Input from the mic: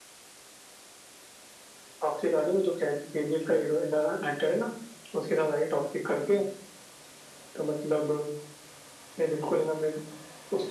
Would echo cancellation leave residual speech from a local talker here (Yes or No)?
No